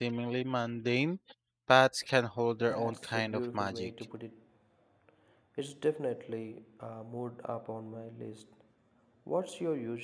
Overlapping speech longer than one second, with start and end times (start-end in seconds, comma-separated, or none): 2.6-3.9